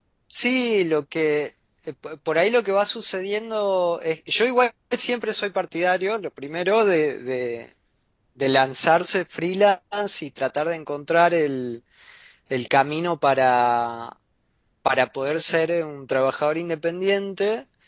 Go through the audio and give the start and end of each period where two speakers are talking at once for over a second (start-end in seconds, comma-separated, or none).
none